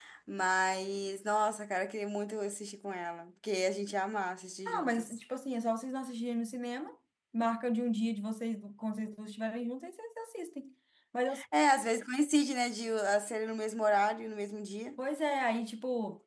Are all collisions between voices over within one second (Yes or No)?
Yes